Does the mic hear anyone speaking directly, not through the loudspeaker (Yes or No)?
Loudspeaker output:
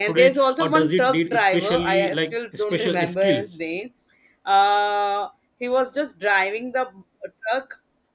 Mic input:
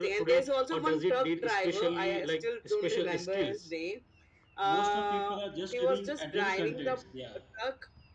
Yes